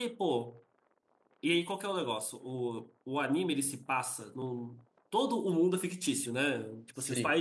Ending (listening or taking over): listening